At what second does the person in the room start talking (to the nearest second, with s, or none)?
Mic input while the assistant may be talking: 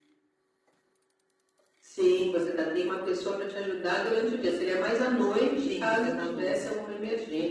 6 s